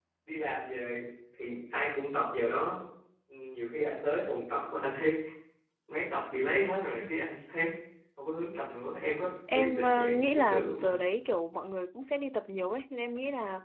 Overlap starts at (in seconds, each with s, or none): 9.5 s